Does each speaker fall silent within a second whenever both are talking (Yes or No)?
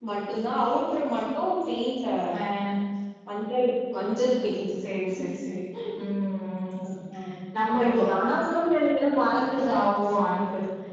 Yes